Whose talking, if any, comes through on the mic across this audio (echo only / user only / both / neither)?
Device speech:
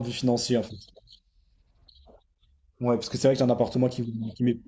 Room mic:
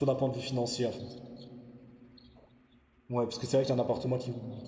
echo only